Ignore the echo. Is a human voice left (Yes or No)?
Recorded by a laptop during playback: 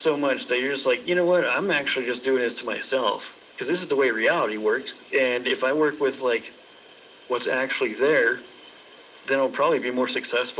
No